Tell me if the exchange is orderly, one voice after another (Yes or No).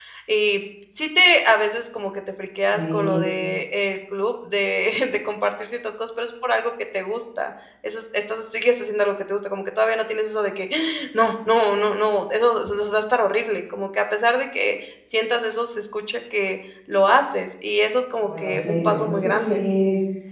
No